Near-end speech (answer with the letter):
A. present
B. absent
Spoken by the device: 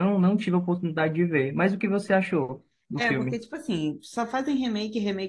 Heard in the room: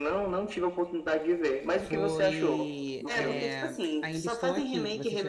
A